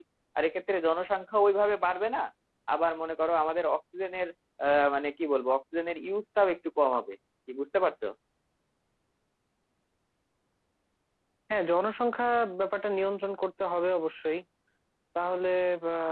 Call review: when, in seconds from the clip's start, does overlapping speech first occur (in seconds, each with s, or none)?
none